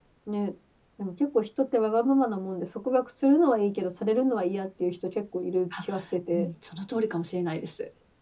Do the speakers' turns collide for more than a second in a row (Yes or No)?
No